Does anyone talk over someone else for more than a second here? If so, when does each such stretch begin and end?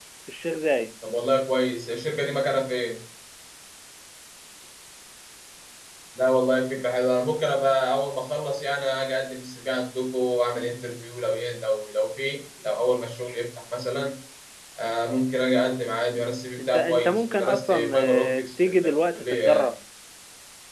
16.6-19.7

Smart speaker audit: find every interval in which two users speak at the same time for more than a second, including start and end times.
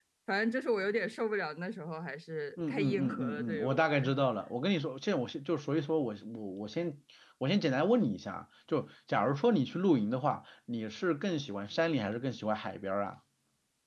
2.7-4.2

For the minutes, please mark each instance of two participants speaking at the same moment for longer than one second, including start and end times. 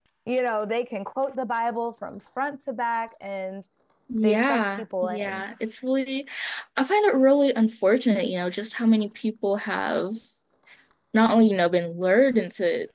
4.2-5.4

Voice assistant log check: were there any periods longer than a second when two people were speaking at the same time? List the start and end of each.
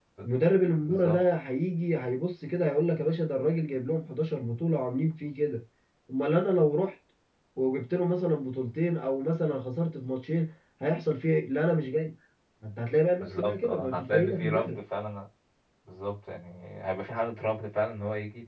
13.2-14.8

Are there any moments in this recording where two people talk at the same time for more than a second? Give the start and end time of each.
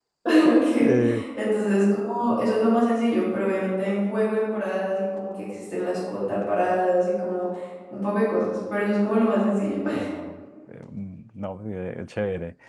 none

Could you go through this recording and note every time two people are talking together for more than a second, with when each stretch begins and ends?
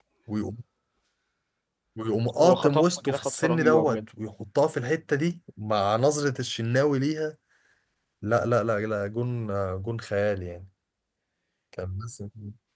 2.4-4.0

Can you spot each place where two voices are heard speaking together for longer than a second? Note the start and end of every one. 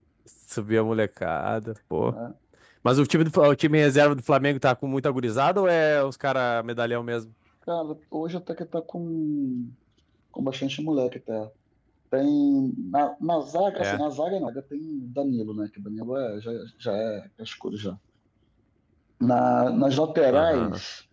none

